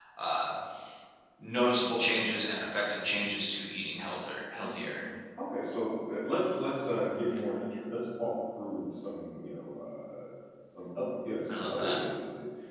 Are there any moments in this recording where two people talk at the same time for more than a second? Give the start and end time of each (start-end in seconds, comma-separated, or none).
none